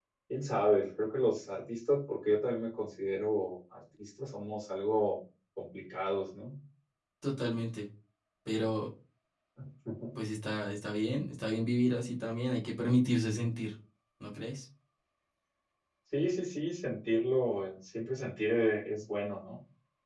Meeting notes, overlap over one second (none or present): none